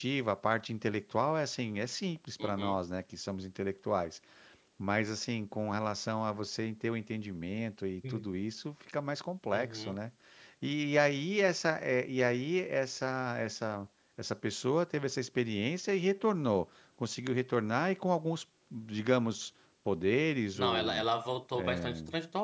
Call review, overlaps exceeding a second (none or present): none